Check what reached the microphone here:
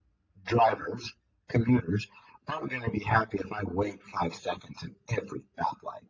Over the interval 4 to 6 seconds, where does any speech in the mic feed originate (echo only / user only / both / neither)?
echo only